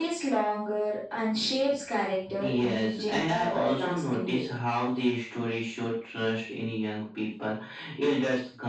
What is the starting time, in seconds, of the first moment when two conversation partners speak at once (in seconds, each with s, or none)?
2.2 s